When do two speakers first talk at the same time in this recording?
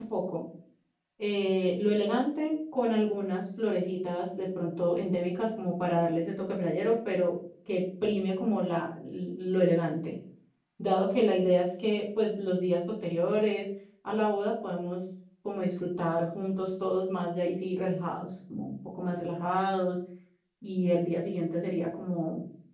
none

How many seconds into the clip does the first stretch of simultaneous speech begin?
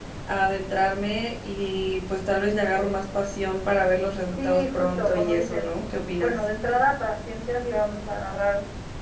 4.4 s

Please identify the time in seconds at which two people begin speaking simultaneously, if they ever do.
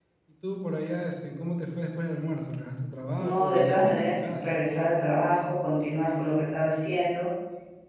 3.2 s

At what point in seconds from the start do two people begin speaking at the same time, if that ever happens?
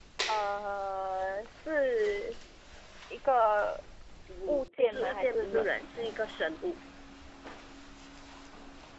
4.5 s

